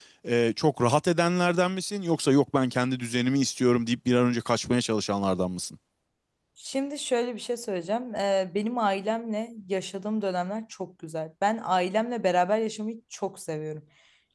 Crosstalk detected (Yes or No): No